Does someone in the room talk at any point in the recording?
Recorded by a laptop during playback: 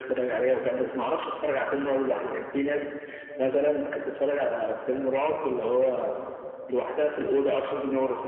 No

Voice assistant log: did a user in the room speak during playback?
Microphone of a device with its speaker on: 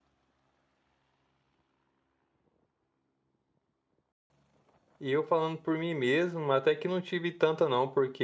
Yes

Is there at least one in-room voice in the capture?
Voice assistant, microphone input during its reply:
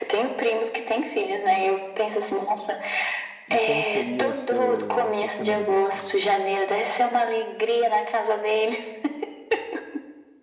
Yes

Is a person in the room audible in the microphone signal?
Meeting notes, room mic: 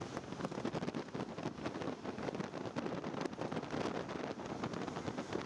No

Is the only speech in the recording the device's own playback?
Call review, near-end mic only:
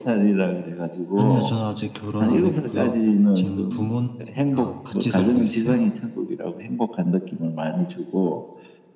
No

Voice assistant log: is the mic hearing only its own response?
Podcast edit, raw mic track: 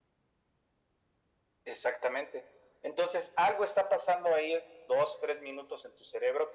Yes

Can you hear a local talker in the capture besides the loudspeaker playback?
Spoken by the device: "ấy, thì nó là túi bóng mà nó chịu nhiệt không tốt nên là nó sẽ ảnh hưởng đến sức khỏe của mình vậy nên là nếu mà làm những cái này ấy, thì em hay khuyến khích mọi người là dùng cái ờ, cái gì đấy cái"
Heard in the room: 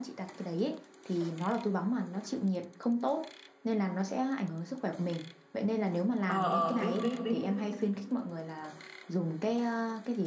Yes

